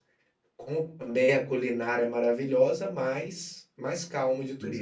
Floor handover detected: Yes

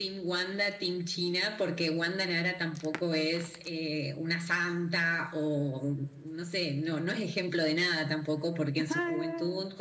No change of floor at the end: Yes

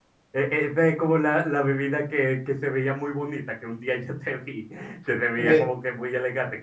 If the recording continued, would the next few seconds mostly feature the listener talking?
No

